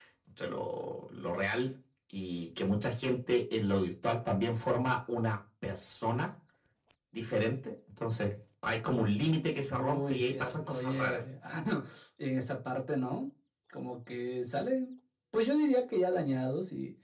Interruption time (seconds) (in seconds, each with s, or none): 9.7 s